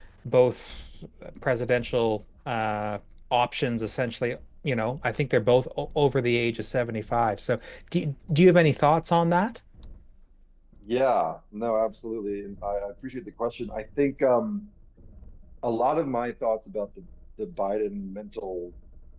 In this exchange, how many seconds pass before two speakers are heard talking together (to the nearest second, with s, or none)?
none